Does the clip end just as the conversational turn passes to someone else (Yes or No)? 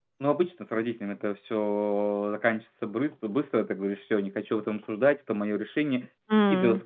No